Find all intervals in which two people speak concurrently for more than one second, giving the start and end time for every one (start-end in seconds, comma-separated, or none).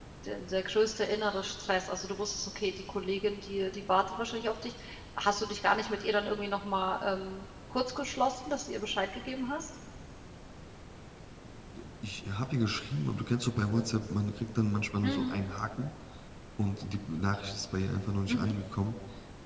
none